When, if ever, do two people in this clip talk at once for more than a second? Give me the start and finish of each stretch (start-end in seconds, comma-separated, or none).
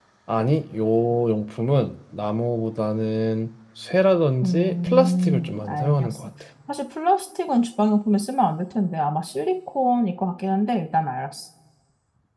4.4-6.3